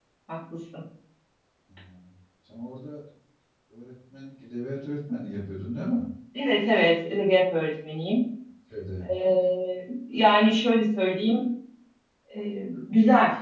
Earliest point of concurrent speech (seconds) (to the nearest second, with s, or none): none